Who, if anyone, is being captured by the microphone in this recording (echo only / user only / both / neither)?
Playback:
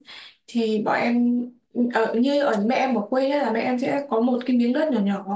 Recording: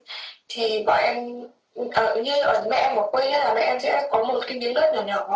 echo only